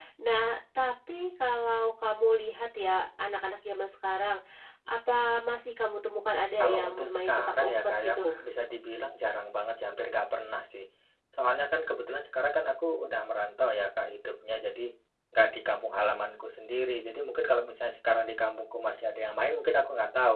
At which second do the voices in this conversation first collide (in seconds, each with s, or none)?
6.6 s